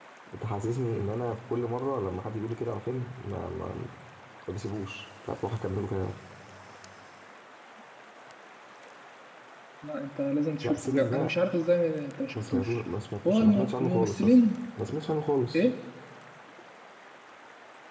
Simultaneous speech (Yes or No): Yes